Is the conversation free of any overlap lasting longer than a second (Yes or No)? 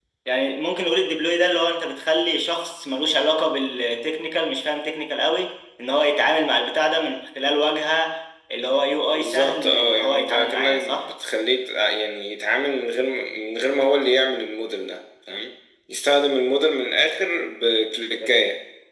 No